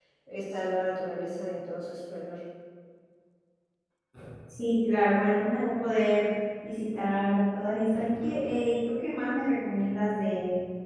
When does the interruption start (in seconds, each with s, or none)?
none